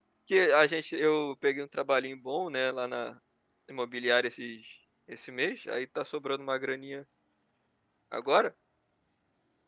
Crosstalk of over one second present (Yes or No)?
No